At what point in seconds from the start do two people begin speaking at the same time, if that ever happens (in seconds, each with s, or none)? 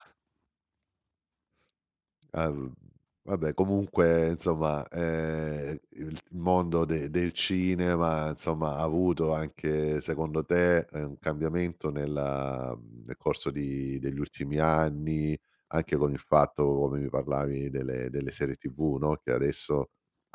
none